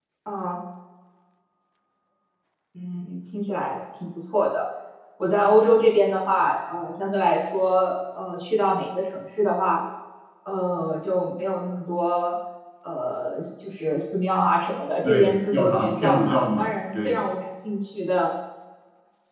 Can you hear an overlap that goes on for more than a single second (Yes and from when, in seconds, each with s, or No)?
Yes, from 15.0 s